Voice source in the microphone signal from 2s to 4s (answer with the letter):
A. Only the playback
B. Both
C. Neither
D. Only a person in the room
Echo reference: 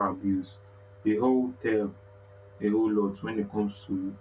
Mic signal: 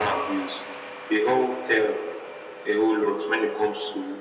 A